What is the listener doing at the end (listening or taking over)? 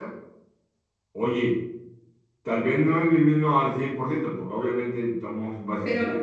taking over